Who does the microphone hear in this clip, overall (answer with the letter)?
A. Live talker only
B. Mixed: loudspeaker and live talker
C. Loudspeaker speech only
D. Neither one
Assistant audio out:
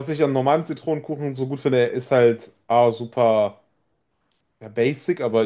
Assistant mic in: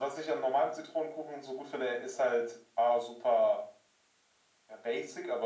C